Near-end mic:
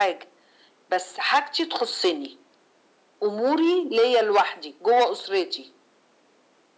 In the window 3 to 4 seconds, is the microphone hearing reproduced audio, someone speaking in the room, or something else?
echo only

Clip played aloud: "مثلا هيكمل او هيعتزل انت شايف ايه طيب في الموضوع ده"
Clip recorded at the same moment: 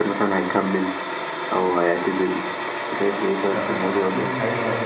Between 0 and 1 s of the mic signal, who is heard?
echo only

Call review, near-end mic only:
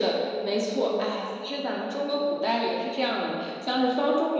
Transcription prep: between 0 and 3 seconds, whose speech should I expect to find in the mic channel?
echo only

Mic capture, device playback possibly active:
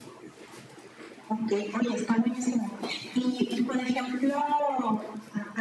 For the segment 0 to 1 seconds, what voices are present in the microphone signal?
neither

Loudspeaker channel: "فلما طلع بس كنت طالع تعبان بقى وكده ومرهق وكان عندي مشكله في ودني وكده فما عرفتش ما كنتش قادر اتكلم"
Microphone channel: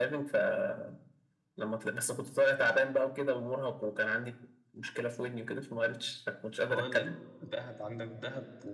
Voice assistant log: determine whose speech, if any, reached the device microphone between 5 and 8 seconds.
both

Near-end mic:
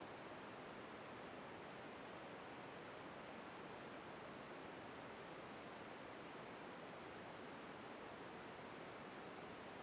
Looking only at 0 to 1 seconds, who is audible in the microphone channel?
neither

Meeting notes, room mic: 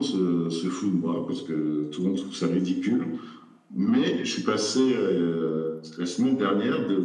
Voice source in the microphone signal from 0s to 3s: echo only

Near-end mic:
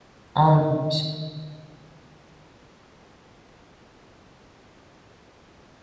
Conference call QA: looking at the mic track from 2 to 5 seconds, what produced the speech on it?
neither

